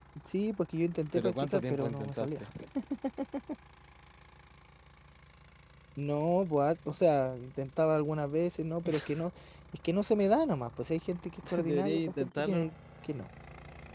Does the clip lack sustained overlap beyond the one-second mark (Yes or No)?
No